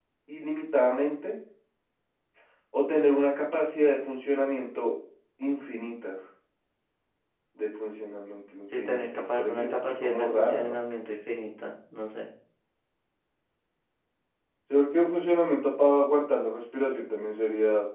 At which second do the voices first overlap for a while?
8.7 s

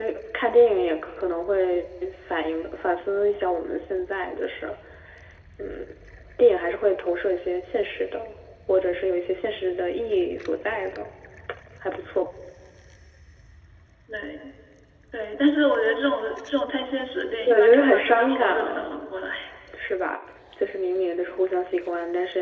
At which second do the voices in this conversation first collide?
17.5 s

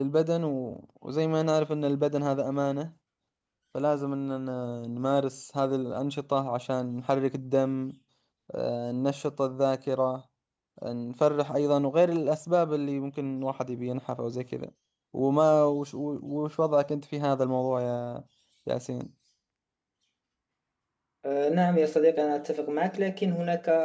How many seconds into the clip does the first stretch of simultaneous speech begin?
none

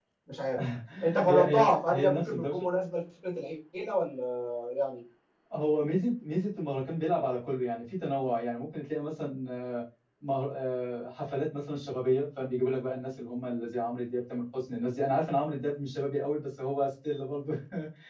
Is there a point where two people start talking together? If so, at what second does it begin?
1.3 s

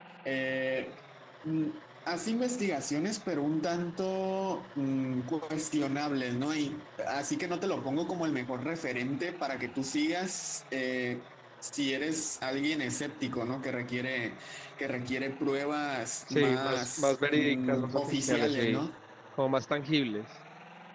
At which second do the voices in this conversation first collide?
16.3 s

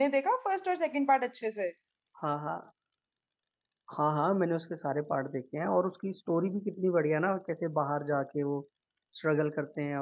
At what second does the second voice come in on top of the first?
none

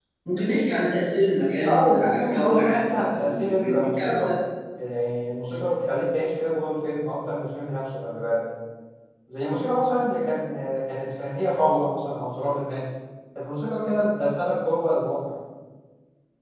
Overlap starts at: 1.6 s

